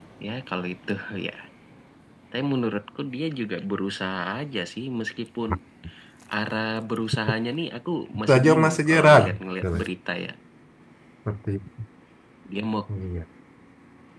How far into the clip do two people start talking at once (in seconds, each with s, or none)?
8.3 s